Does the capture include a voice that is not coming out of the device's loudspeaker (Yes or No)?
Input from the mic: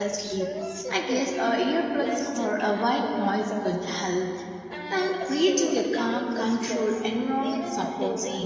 Yes